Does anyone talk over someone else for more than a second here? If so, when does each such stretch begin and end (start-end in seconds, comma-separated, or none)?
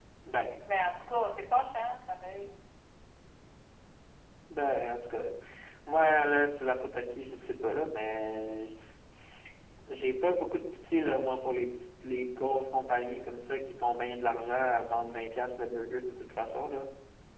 none